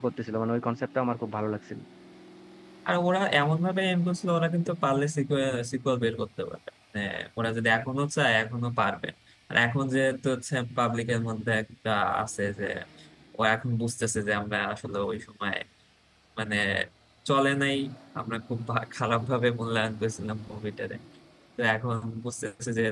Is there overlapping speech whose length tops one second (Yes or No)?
No